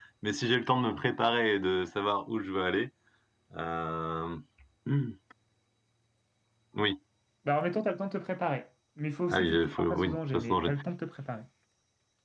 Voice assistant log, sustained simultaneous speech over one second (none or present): present